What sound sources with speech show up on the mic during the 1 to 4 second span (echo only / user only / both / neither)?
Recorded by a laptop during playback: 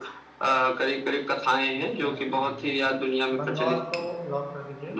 both